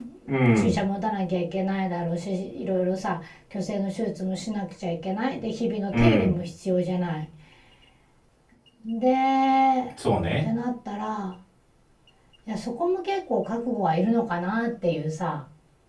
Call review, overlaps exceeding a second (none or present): none